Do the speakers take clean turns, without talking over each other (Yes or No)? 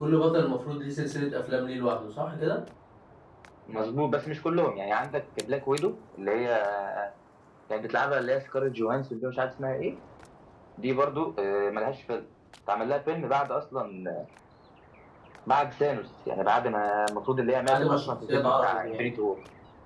No